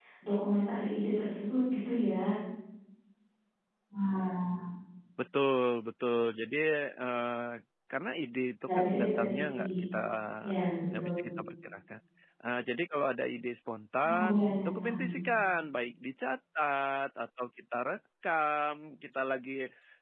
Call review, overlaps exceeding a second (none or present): present